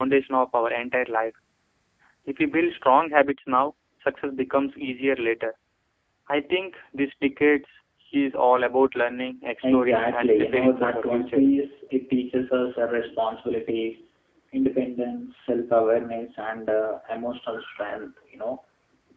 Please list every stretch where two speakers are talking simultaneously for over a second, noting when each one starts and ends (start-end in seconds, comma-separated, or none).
9.7-11.4